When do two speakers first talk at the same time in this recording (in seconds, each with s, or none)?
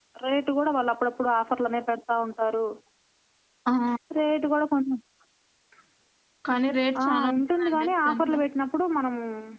7.0 s